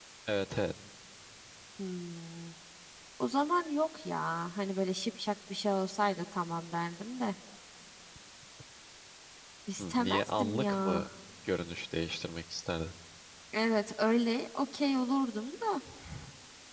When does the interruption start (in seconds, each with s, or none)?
9.8 s